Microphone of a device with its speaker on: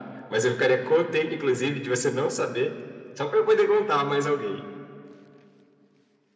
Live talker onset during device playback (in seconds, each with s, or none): none